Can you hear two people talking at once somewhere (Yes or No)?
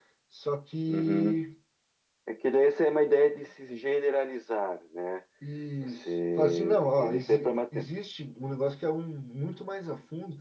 Yes